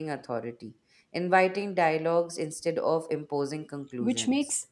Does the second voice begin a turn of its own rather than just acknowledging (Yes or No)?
Yes